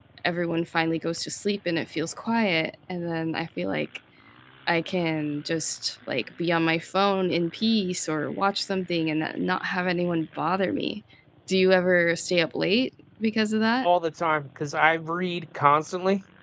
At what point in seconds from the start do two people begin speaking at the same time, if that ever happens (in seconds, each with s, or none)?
none